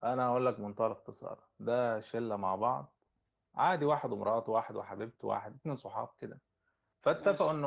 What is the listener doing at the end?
listening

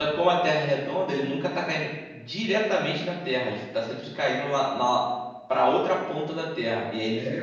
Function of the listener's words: taking over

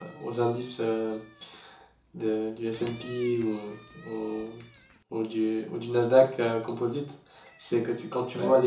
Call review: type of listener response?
listening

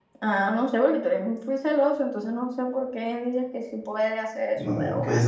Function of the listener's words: taking over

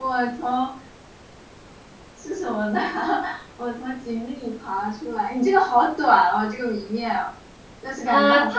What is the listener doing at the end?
taking over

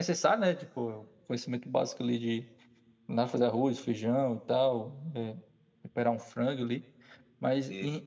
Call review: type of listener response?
listening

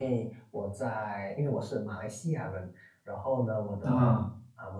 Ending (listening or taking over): listening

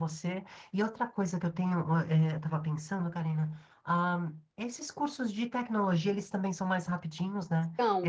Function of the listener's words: taking over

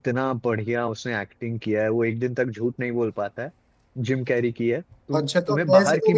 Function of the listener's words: taking over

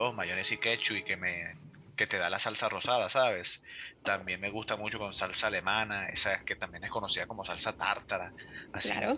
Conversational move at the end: listening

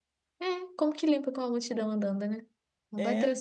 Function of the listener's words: taking over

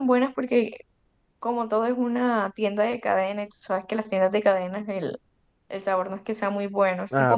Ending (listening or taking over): taking over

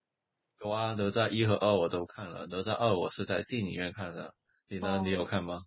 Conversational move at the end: taking over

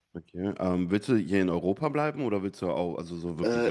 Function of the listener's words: taking over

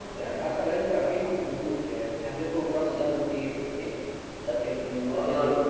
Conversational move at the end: taking over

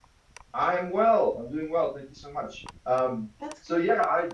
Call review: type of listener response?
listening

